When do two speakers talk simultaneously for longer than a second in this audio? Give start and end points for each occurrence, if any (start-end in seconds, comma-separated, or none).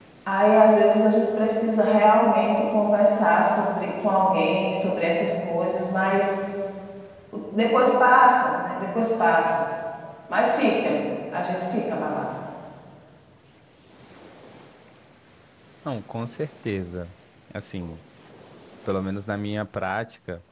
none